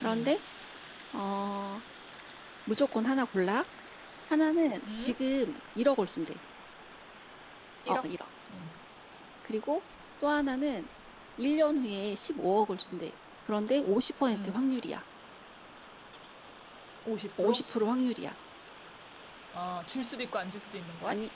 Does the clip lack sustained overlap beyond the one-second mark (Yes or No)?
Yes